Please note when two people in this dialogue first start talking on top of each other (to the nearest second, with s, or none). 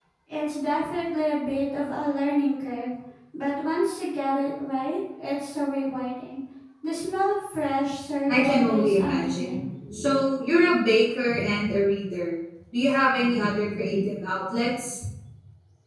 8 s